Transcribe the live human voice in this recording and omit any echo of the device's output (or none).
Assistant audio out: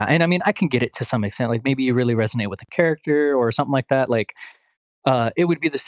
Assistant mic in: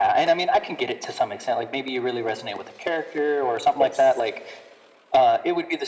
yes.